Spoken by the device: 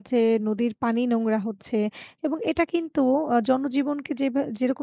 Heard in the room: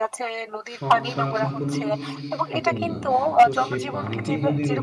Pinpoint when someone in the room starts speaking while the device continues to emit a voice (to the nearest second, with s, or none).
1 s